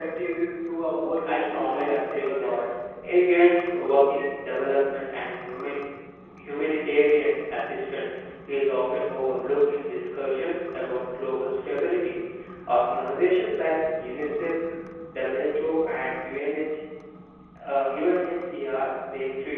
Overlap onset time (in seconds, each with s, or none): 1.2 s